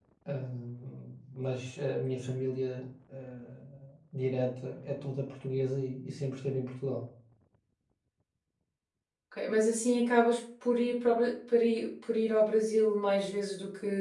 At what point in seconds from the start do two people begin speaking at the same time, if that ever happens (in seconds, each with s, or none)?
none